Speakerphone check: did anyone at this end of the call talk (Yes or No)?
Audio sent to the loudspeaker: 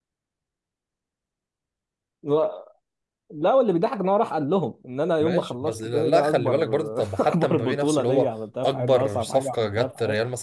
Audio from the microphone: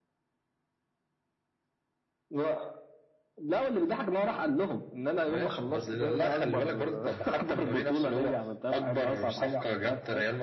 No